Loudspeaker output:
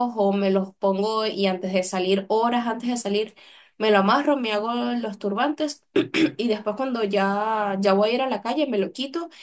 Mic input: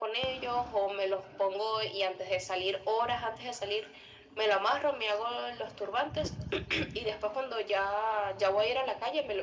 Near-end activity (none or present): none